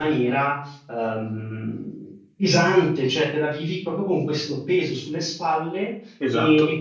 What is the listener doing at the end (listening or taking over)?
listening